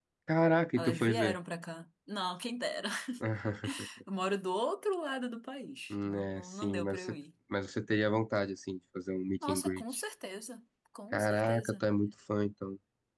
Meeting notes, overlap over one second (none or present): present